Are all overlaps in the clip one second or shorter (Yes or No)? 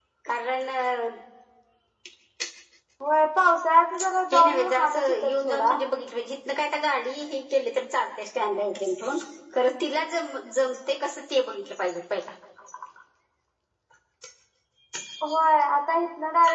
No